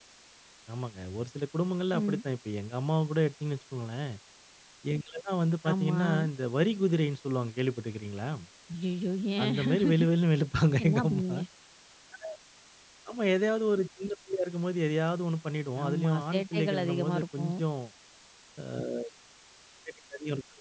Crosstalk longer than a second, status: present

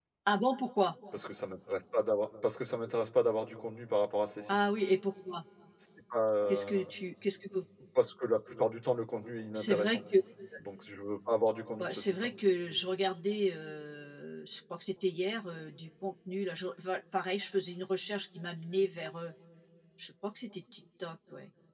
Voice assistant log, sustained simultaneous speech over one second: none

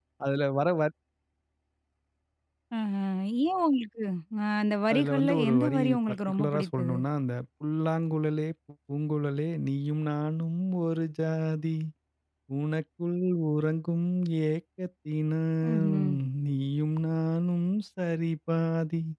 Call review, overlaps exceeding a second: present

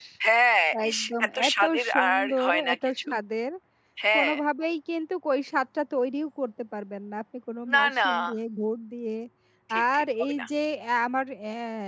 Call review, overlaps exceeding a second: present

